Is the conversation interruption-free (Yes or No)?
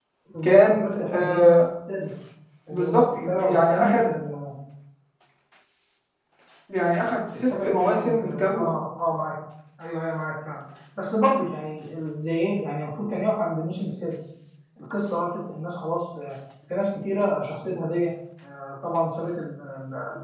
No